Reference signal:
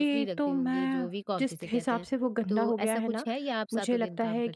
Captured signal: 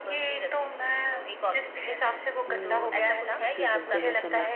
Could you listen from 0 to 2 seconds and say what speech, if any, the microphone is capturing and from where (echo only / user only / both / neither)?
echo only